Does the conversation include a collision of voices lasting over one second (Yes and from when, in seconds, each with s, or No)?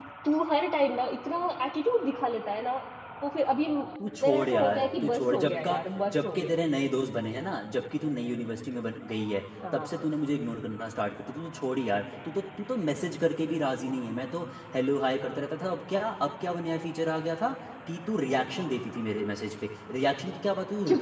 Yes, from 4.2 s